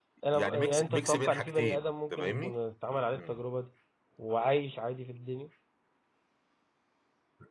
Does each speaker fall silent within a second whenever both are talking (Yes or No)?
No